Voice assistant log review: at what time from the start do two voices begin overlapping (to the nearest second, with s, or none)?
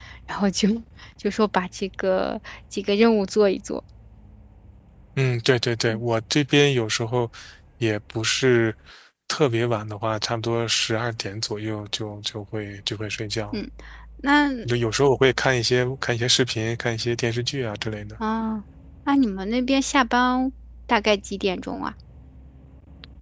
none